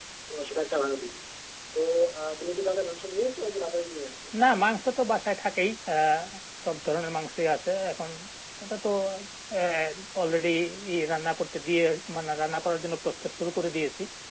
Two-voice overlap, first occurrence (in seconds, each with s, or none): none